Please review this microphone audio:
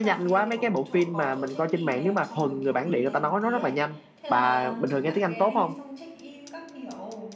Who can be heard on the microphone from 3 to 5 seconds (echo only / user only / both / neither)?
both